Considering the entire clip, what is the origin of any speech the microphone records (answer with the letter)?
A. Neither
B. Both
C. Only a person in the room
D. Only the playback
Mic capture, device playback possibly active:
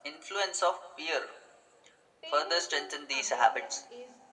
B